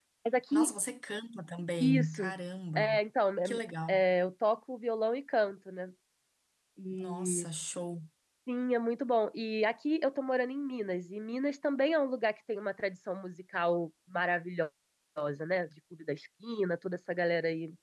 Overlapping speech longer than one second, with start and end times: none

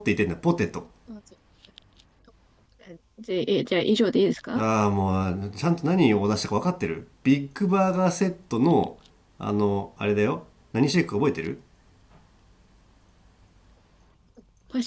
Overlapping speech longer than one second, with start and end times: none

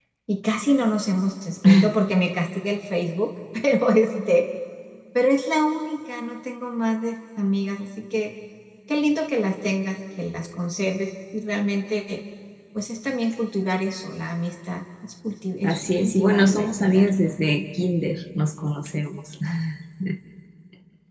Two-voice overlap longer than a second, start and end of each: 15.6-17.4

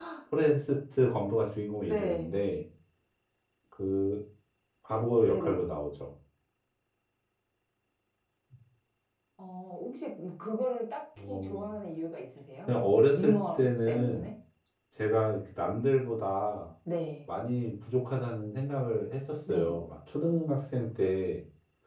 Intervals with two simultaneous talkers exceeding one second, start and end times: 12.7-14.3

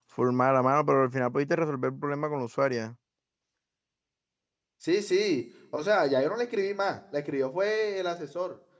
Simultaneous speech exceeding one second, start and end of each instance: none

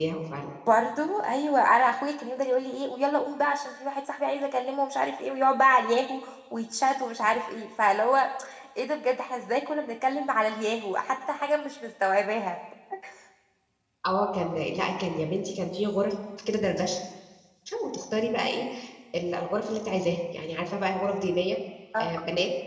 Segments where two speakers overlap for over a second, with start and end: none

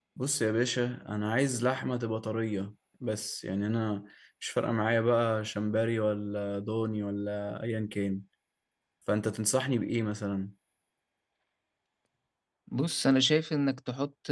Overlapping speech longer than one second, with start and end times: none

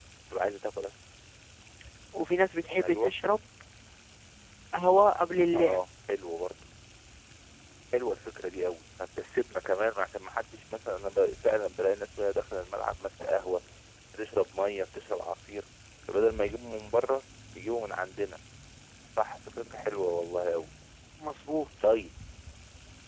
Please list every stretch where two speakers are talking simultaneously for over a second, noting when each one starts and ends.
none

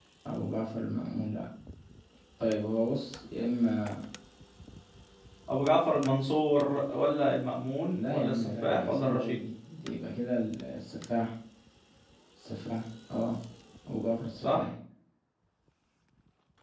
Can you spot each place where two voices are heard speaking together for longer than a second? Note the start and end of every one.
7.9-9.4

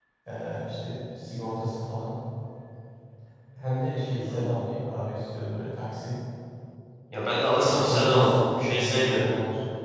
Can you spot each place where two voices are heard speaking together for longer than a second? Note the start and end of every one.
7.8-9.3

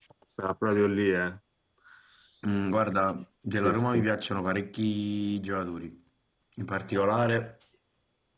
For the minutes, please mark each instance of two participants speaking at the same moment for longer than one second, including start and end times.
none

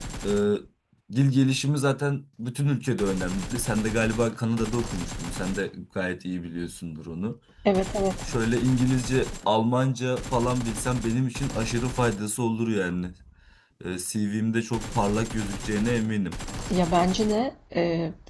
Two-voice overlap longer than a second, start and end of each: none

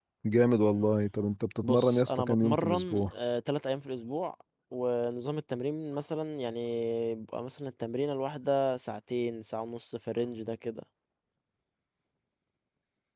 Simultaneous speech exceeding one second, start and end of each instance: 1.6-3.1

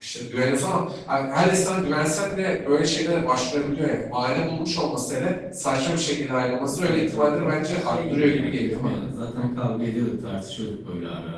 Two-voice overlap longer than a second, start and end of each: 6.6-8.9

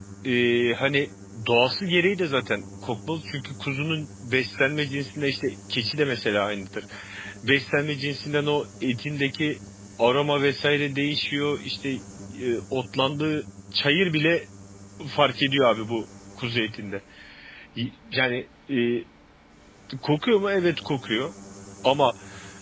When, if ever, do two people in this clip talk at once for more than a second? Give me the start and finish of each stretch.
none

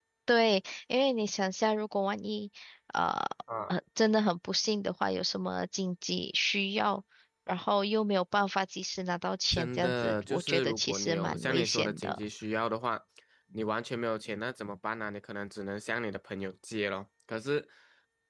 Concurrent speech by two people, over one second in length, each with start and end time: 9.5-12.2

